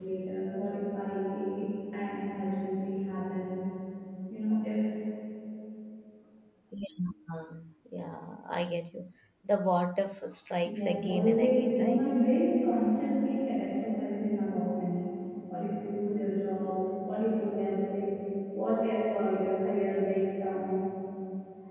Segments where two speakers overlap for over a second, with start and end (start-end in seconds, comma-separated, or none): 10.7-12.1